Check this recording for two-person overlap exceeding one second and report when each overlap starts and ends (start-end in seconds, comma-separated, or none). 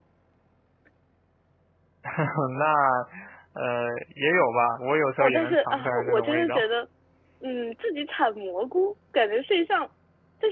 5.2-6.6